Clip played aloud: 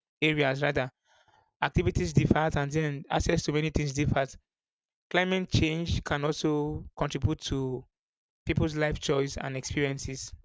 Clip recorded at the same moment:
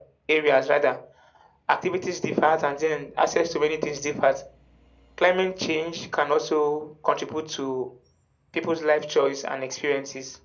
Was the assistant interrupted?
No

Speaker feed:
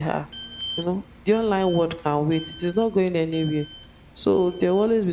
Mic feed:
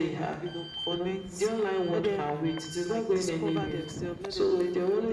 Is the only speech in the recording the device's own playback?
No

